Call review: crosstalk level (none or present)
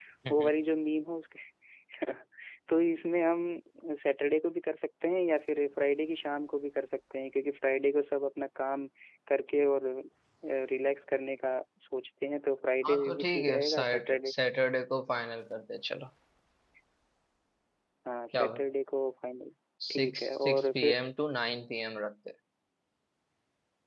present